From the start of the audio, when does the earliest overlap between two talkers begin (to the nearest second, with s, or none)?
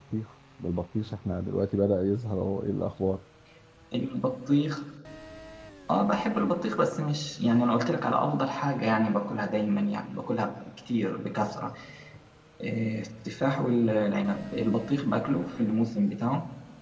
none